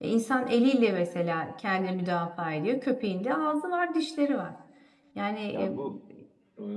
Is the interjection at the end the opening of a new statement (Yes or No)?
Yes